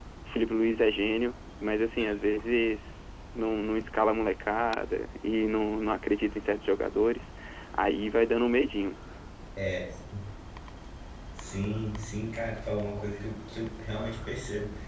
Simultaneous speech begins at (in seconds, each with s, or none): none